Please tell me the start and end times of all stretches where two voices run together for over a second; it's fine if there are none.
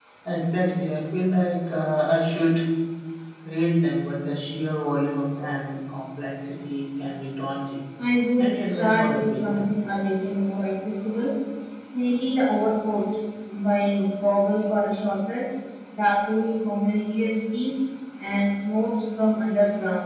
8.4-9.7

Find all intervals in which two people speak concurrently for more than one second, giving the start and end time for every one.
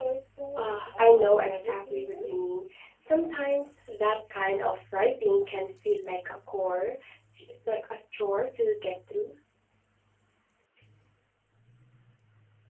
0.6-2.3

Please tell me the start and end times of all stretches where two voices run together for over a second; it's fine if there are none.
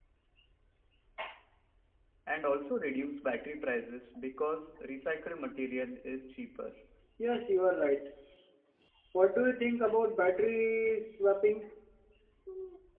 none

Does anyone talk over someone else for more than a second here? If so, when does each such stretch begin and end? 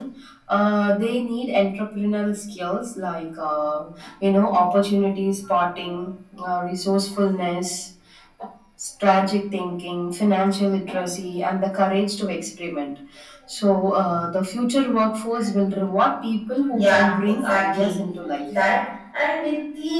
16.7-17.9

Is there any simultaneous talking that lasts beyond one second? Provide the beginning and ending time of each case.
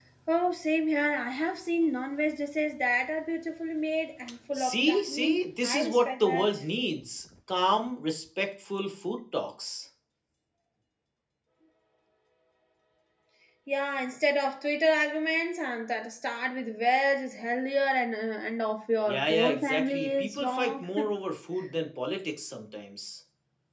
4.5-6.5, 19.1-20.8

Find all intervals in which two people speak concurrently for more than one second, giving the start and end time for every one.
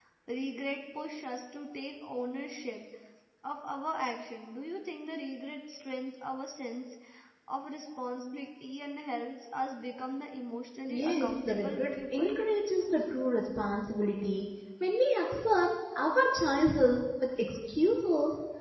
10.9-12.3

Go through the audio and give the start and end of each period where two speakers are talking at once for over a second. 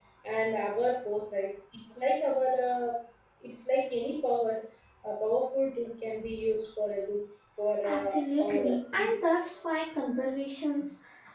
7.8-9.1

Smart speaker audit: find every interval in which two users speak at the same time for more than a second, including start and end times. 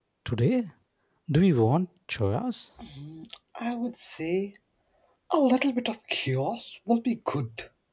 none

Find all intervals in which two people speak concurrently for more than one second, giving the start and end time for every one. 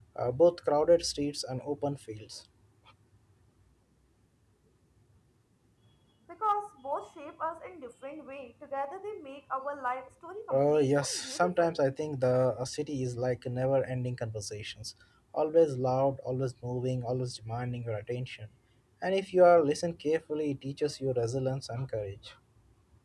10.5-11.8

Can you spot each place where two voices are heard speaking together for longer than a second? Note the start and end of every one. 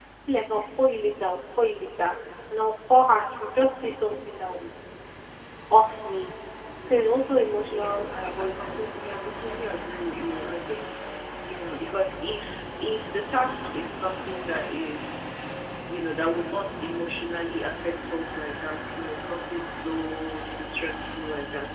7.7-8.9

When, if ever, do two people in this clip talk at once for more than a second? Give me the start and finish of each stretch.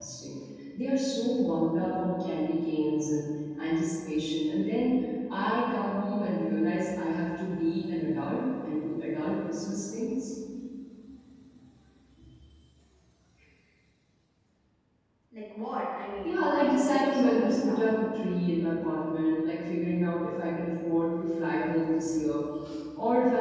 16.2-17.8

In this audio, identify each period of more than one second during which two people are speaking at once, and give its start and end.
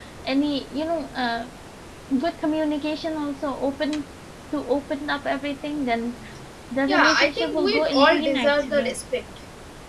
6.9-8.9

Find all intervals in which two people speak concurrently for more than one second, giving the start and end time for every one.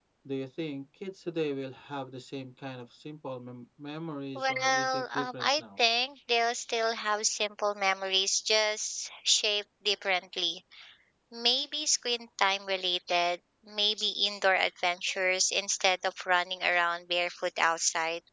4.3-5.6

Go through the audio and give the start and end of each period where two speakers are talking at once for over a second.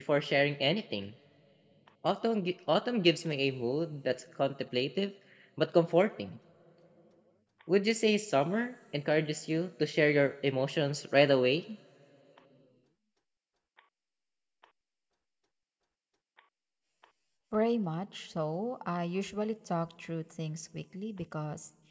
none

